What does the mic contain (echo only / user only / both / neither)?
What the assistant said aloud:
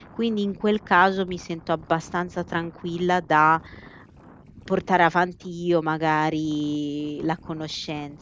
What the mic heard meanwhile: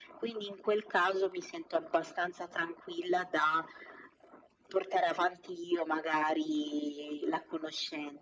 echo only